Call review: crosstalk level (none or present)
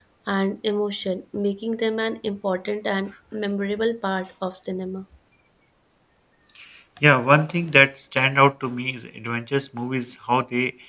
none